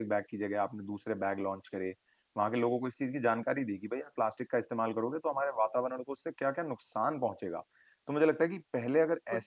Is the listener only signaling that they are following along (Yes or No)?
Yes